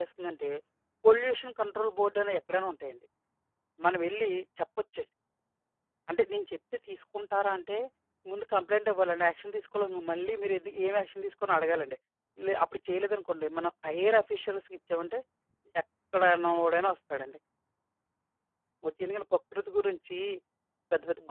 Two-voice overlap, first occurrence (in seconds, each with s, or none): none